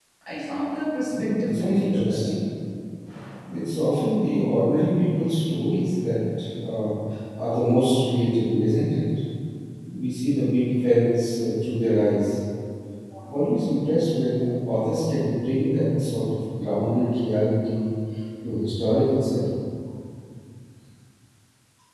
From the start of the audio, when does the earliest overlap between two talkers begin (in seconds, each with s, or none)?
1.1 s